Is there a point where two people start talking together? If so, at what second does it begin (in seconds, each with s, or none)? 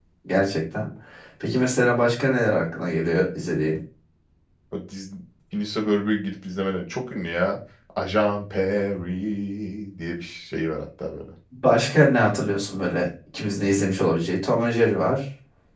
none